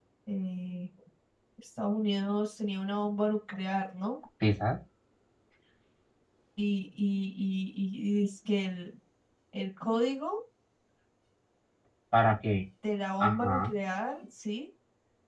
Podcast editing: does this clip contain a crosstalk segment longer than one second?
No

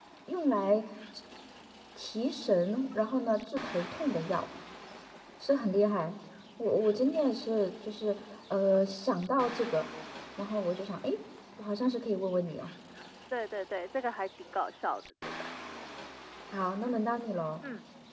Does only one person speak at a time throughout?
Yes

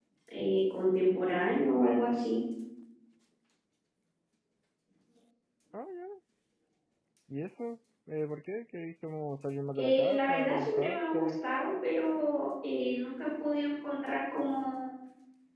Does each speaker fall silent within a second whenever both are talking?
No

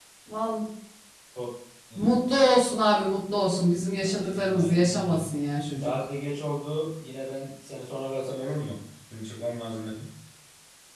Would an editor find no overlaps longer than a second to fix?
No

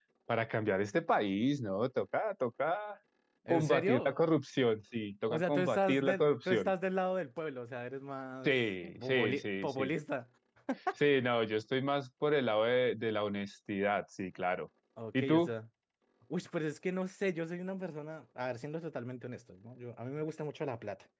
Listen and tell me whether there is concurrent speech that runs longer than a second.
Yes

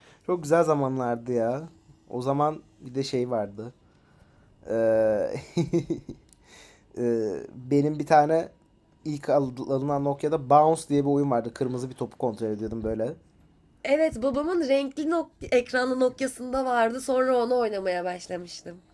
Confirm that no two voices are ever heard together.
Yes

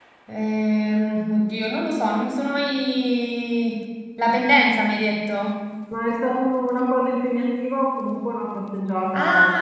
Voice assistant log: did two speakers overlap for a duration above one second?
No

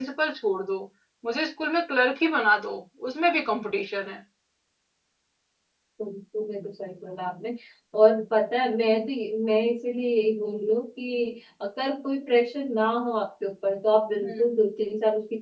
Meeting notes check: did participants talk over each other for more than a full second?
No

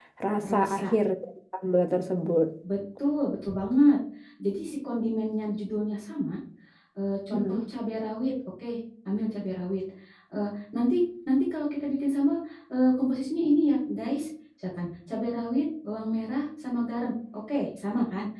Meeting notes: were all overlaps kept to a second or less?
Yes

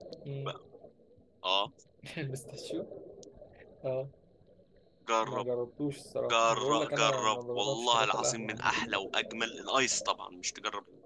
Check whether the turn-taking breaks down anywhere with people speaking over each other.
Yes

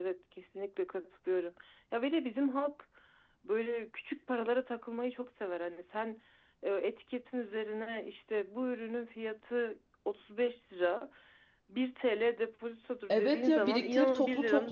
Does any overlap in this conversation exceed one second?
Yes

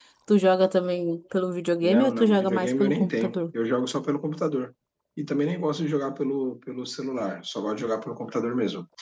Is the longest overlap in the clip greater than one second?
Yes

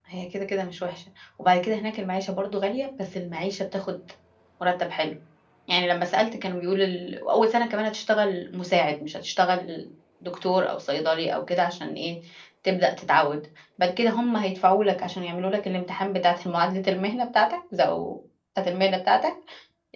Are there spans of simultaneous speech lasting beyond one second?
No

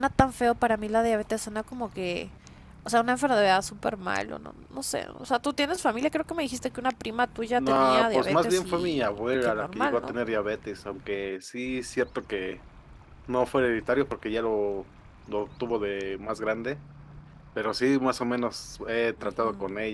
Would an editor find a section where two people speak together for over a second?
Yes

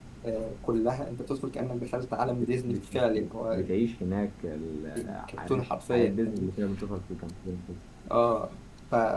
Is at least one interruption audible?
Yes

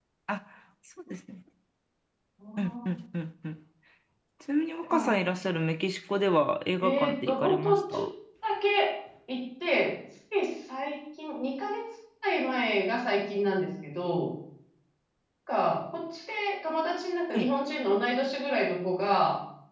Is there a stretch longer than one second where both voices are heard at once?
Yes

